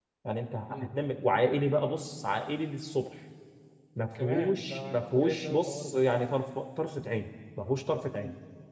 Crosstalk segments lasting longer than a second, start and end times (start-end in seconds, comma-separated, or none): 4.2-6.0